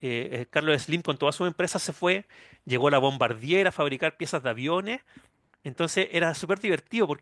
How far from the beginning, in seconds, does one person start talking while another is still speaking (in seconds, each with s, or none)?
none